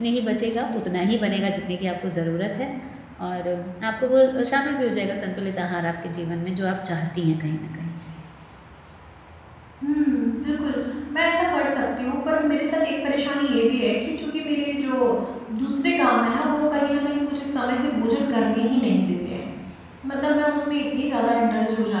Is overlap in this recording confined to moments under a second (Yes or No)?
Yes